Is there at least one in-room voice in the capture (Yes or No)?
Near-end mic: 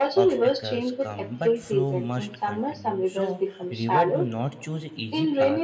Yes